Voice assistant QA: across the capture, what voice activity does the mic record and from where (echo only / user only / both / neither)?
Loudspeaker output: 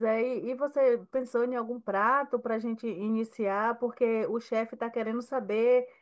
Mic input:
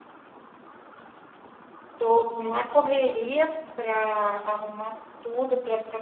user only